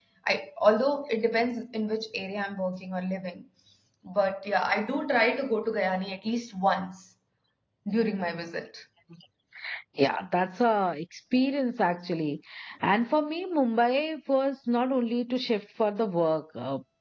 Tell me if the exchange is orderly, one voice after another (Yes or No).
Yes